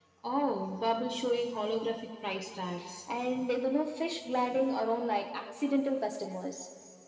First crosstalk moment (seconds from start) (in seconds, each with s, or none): none